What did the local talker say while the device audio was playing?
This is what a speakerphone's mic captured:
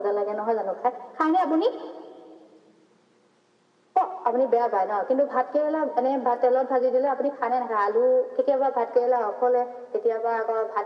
none

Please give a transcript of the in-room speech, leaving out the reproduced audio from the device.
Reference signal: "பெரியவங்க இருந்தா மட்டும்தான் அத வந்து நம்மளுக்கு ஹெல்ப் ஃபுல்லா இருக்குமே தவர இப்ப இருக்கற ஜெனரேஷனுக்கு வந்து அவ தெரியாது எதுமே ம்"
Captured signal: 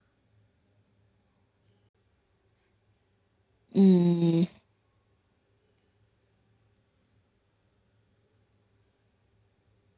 ம்.

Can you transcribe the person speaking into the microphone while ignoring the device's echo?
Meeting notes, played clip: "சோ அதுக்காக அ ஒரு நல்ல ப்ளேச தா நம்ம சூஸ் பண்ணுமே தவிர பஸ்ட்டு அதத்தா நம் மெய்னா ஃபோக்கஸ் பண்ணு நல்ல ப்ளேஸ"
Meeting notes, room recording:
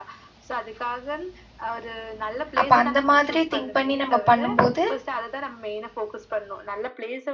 அப்ப அந்த மாதிரி திங்க் பண்ணி நம்ப பண்ணும் போது

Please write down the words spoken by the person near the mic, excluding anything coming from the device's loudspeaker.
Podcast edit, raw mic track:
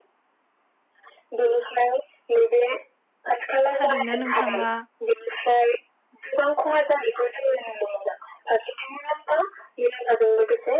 थारैनो नोंथाङा

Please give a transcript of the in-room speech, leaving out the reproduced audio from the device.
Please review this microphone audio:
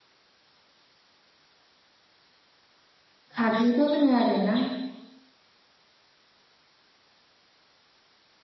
फाख्रिबो होनो आरो ना।

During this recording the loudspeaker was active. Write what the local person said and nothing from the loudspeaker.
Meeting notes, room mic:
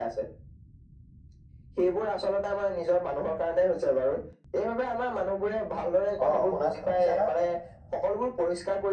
অ' শুনাছে শুনিছো নহয়

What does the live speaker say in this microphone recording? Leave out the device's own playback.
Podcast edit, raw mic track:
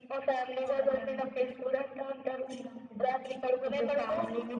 none

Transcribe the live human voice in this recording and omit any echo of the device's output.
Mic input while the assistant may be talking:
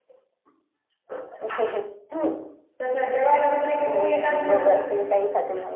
तस जेवायला बसल की पोळी जात नव्हती.

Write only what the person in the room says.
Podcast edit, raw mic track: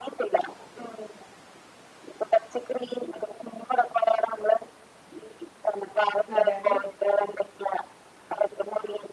അതെ അതെ

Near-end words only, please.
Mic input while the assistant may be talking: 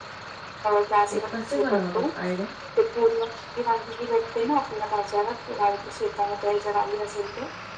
ते कसे बनवतात आयडिया

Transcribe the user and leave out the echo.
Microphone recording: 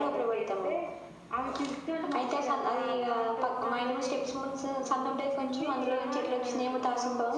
అకొ వచ్చింది ఇగ

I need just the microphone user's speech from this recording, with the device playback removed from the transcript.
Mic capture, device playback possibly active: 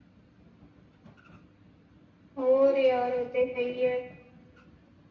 ਹੋਰ ਯਾਰ ਉਹ ਤੇ ਹੈ ਹੀ ਹੈ

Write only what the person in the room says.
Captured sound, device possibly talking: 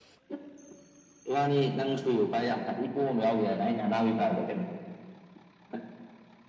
none

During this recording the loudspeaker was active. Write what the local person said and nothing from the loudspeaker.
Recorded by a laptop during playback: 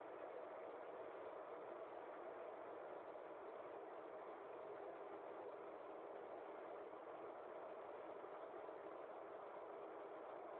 none

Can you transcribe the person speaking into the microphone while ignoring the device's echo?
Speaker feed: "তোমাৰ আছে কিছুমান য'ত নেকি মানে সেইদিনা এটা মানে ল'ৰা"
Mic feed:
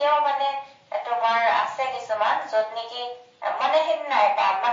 none

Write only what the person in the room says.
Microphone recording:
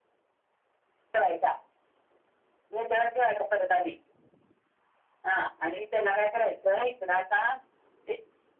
none

